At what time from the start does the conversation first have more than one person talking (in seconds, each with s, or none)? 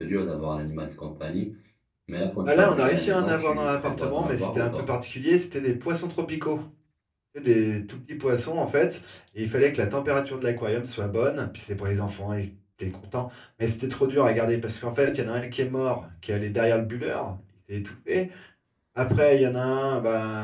2.5 s